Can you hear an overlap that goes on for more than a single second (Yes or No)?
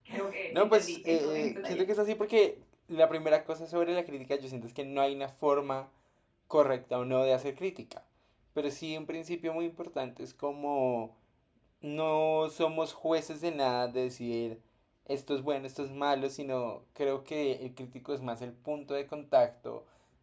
Yes